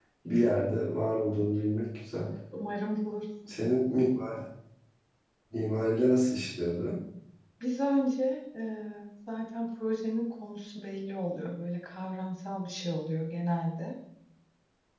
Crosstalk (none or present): none